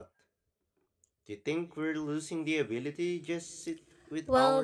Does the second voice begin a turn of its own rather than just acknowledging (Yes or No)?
Yes